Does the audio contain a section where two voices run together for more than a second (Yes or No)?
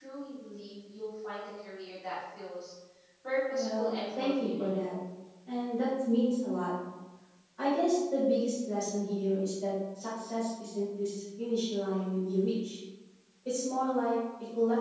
Yes